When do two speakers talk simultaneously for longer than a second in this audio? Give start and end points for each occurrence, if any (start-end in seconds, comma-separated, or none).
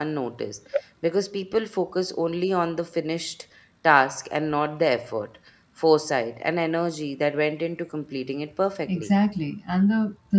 none